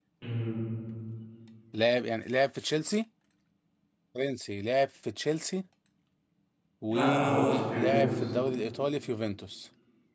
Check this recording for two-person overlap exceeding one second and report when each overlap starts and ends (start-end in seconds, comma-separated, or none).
6.9-8.2